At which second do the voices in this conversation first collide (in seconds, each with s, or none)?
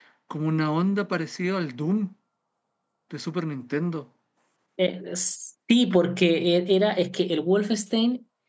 none